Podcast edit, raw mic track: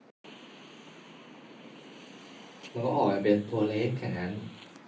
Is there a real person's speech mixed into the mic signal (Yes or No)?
Yes